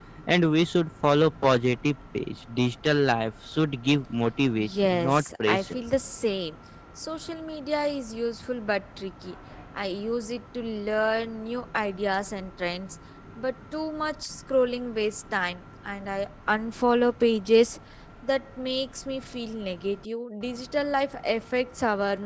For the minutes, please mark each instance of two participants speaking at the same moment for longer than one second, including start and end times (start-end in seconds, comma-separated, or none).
4.5-5.8